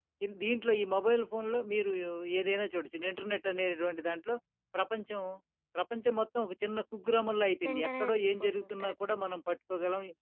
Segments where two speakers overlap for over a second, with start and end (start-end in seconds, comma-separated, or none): 7.7-9.0